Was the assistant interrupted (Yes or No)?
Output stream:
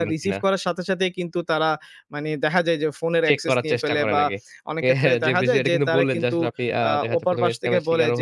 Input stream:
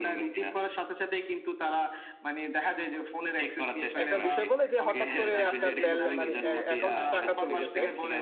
Yes